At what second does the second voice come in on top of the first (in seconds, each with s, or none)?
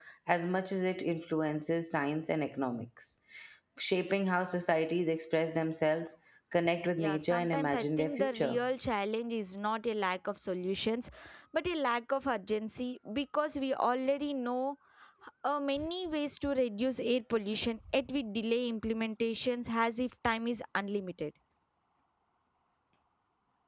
7.0 s